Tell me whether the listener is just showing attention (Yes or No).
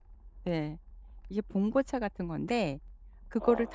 Yes